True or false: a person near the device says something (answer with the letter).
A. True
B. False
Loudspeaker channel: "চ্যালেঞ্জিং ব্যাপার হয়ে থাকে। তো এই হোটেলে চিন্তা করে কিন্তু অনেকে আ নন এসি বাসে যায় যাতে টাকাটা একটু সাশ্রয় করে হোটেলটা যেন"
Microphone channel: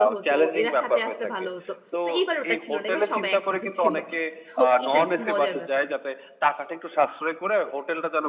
A